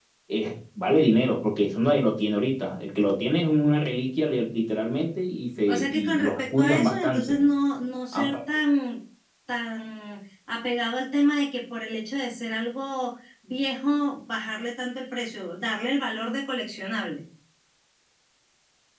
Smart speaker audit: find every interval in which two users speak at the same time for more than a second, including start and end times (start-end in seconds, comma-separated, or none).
5.7-7.3